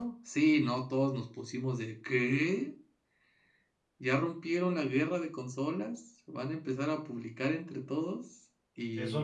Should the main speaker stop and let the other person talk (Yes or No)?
Yes